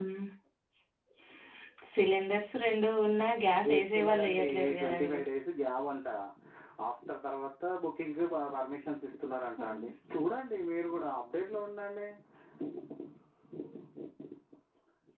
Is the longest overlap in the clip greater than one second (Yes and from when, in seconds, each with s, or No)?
Yes, from 3.7 s